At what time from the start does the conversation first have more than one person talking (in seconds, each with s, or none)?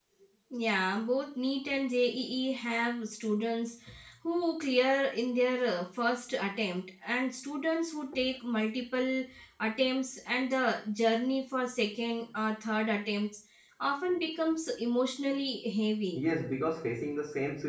none